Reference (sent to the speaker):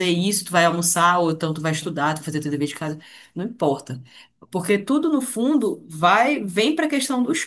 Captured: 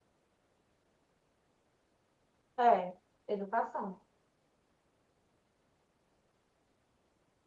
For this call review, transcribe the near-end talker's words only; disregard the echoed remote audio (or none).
É, educação.